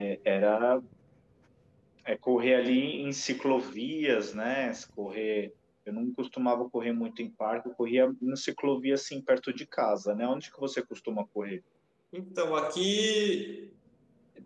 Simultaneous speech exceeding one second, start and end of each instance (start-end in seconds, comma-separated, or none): none